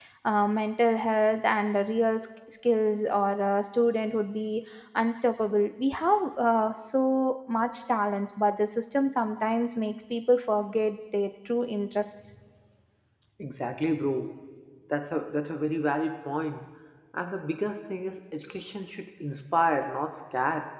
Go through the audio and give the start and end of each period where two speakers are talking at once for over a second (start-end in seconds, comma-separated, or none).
none